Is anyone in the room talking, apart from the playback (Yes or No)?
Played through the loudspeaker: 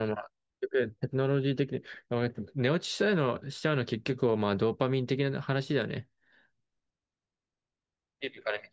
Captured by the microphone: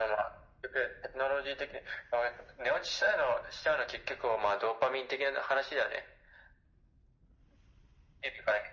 No